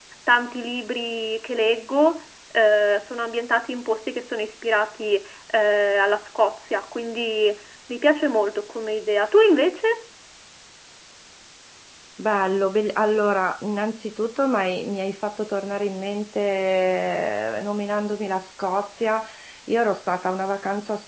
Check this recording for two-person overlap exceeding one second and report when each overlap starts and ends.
none

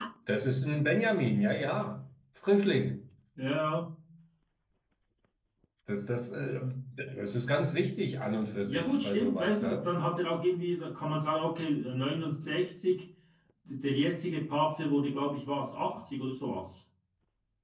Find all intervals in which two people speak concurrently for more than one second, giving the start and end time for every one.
8.6-9.9

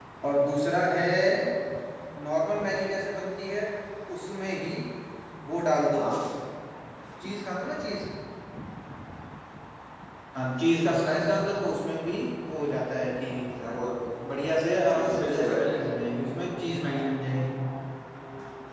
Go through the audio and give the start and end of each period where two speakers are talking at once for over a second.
14.9-16.2

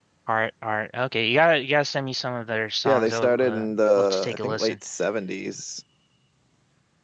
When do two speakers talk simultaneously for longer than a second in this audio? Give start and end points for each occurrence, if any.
2.9-4.8

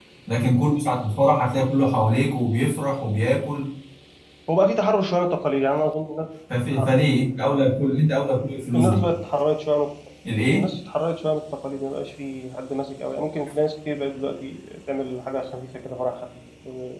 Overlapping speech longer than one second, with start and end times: none

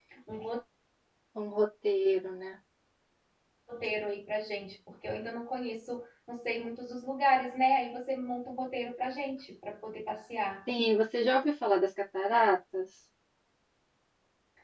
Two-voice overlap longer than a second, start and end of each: none

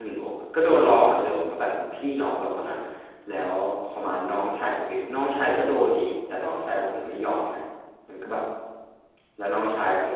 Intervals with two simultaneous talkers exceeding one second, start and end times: none

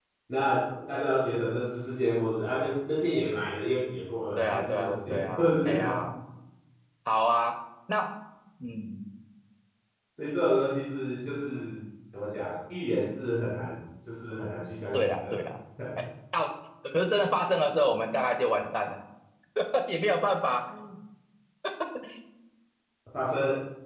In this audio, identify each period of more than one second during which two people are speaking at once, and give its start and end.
4.4-6.0

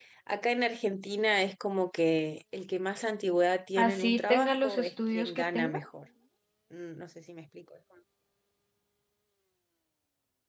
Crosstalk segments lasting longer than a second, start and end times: 3.8-5.8

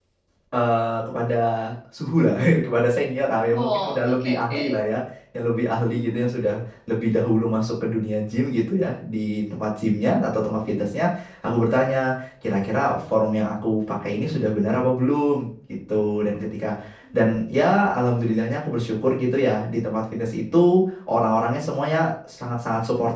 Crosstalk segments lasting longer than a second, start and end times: 3.5-5.0

